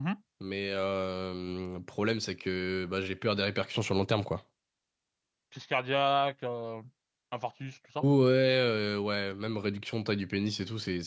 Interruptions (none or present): none